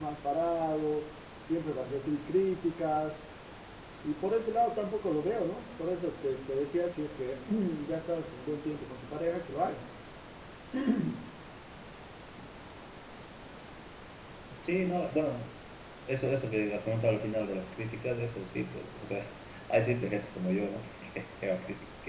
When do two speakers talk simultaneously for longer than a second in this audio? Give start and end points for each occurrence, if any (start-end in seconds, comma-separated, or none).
none